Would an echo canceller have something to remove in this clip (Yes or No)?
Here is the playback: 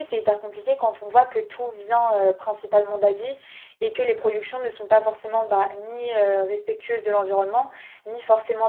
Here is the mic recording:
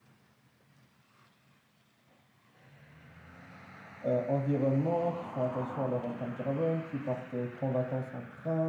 No